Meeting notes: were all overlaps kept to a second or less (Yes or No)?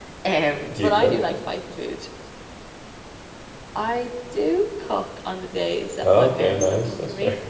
No